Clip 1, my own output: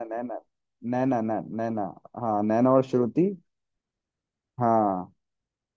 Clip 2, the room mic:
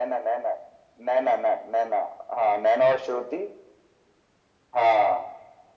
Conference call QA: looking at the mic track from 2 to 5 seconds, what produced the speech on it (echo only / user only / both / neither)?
echo only